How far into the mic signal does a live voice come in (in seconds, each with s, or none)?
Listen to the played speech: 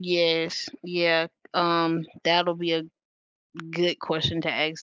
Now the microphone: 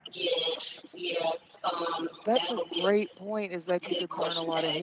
2.2 s